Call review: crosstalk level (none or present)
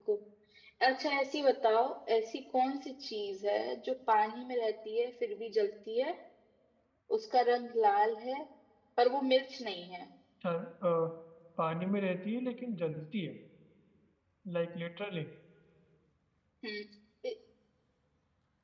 none